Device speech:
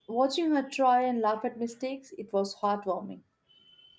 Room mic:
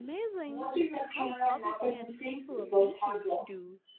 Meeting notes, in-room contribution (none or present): present